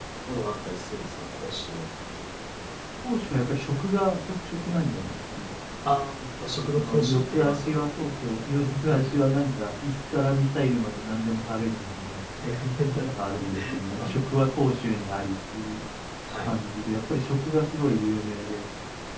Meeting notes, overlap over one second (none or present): present